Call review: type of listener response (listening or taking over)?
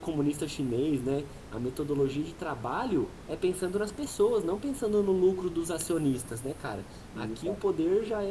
listening